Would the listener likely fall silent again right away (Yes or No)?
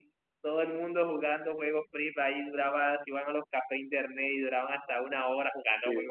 No